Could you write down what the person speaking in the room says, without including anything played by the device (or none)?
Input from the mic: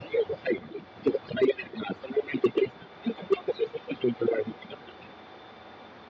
none